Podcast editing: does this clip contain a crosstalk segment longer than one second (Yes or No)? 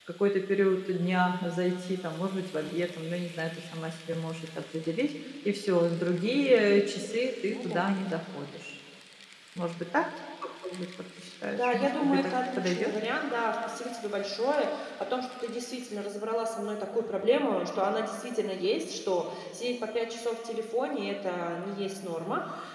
Yes